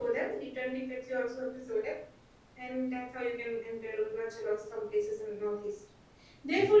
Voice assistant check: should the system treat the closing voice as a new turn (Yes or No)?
No